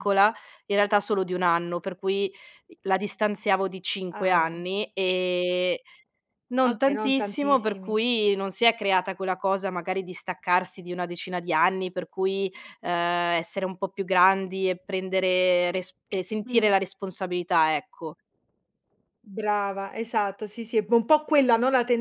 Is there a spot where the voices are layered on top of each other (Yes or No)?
Yes